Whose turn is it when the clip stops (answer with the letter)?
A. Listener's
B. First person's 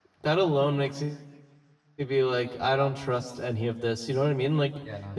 B